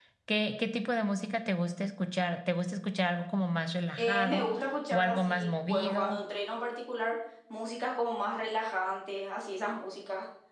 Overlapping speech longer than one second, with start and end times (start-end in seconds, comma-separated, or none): 4.9-6.2